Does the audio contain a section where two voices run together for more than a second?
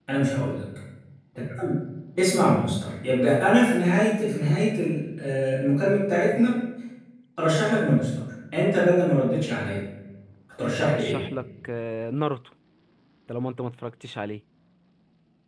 No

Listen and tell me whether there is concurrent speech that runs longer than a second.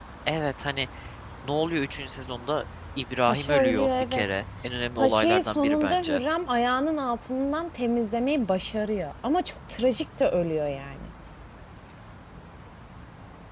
Yes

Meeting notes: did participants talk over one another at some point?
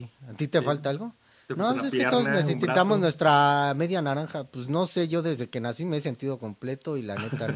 Yes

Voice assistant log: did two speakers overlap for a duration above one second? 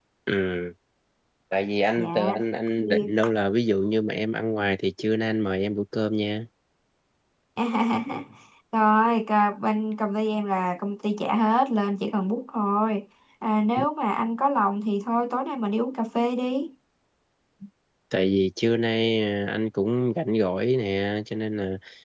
No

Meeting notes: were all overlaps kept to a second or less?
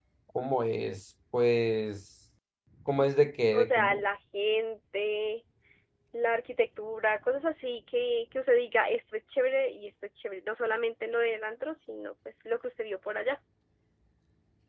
Yes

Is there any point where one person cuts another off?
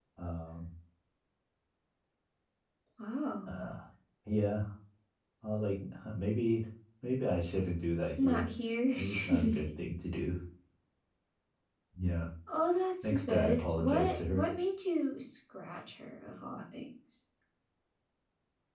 Yes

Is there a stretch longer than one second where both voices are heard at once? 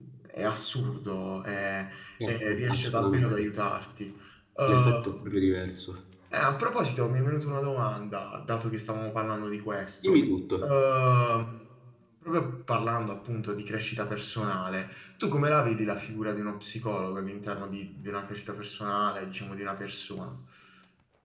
Yes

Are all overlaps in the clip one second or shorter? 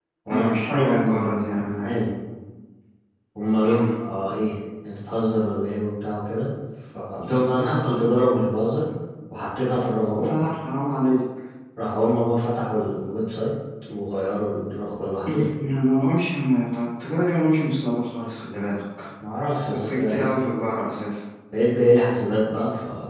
No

